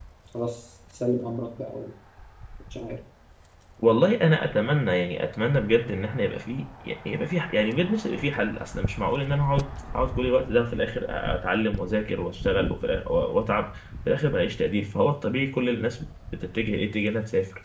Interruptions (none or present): none